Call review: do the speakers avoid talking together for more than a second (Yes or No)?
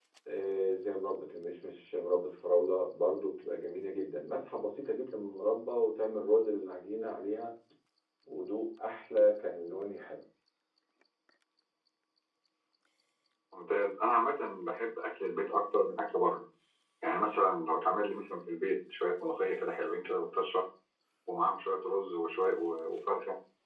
Yes